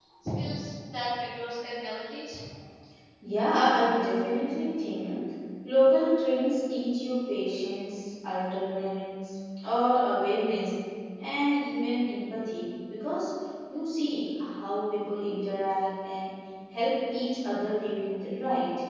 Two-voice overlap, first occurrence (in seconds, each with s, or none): none